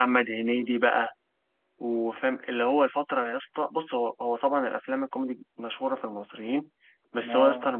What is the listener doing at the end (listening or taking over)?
listening